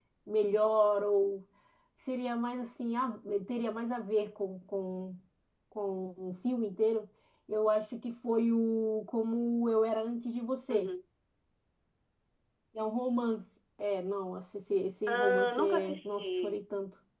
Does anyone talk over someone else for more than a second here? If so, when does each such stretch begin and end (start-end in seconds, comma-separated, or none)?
15.1-16.6